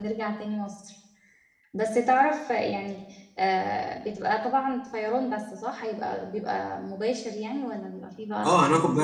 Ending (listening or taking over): taking over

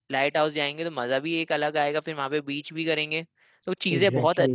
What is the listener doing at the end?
listening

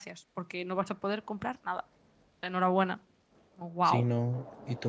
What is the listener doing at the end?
taking over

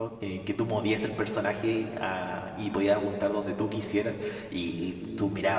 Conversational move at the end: listening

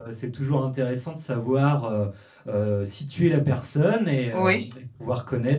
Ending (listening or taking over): listening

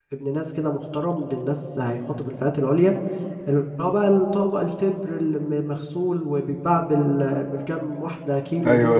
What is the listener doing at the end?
taking over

